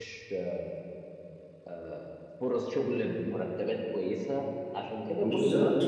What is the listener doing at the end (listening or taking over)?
listening